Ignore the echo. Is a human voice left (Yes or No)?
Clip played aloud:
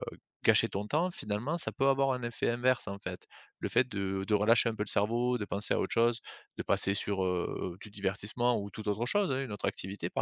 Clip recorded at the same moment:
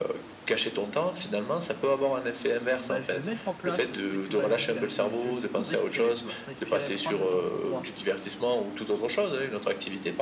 Yes